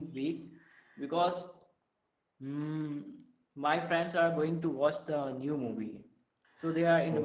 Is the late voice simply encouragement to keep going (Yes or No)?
Yes